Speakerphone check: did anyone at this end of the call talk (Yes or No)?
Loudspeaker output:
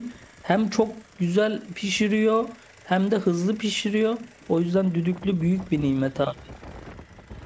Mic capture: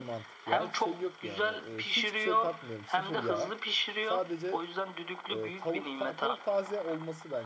Yes